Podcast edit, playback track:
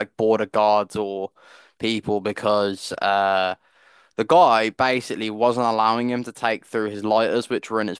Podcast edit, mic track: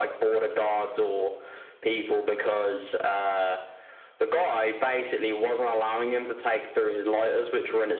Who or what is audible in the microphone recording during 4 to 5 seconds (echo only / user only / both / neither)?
echo only